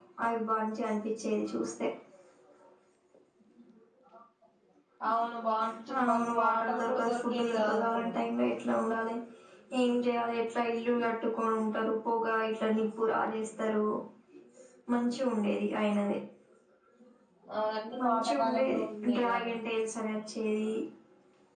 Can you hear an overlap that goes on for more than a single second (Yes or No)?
Yes